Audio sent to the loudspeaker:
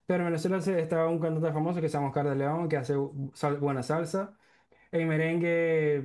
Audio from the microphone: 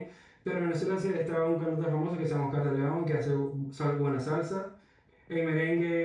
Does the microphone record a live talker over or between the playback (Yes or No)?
No